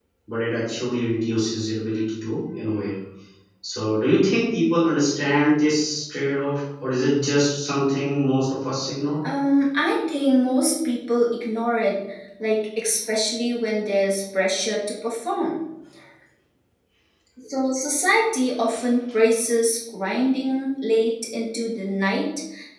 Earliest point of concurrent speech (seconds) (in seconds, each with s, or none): none